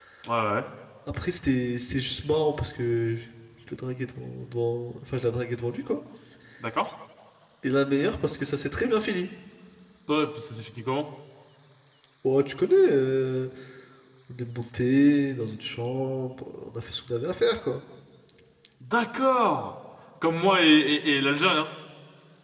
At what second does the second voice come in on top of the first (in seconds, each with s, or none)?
none